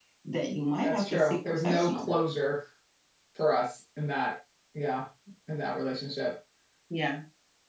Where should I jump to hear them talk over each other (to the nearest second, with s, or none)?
1 s